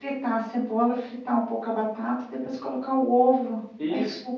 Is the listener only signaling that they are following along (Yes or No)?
No